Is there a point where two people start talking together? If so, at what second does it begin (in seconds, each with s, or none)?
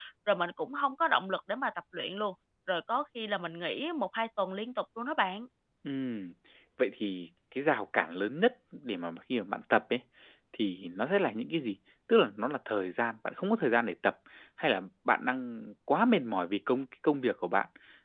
none